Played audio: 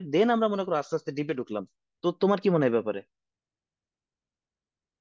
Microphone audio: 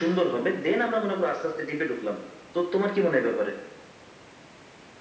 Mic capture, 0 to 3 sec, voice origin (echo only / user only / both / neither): echo only